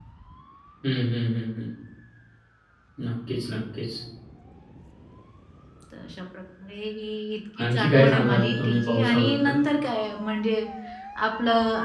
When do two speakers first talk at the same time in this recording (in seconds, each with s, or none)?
7.6 s